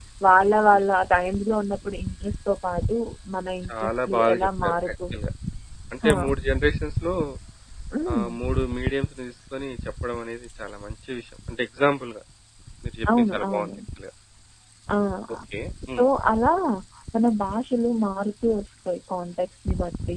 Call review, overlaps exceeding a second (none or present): present